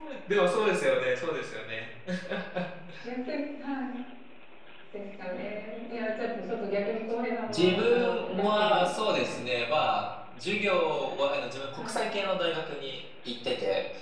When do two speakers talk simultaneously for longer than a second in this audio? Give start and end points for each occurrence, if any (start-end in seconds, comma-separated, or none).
7.5-9.4